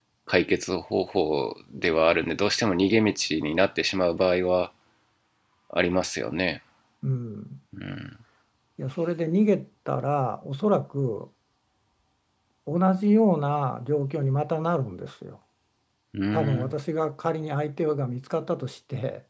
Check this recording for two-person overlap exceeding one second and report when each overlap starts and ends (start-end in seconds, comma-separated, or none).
none